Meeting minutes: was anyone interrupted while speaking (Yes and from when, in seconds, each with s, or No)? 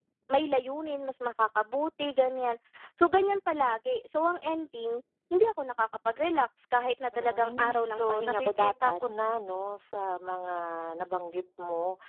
Yes, from 7.1 s